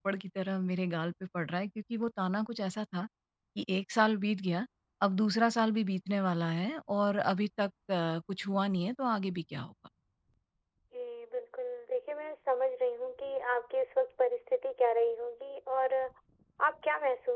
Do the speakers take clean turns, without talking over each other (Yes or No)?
Yes